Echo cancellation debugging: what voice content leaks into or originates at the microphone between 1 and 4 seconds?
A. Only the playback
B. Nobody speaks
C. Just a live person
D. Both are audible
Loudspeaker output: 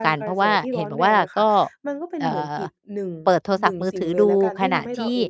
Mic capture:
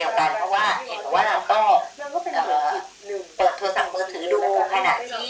A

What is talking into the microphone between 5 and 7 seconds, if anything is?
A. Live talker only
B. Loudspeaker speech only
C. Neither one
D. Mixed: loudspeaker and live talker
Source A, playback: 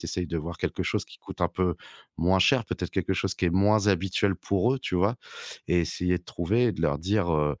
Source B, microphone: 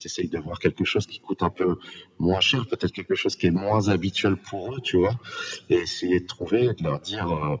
B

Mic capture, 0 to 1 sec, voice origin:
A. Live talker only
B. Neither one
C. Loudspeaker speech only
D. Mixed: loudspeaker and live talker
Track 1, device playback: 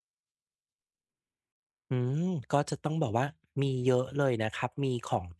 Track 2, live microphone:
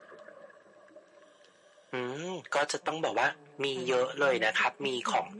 B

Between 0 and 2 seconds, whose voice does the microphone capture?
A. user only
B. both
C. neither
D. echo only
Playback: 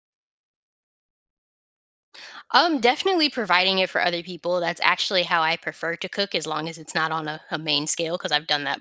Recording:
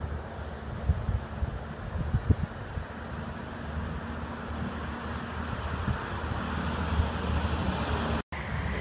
C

